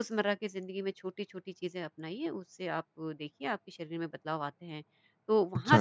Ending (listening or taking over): listening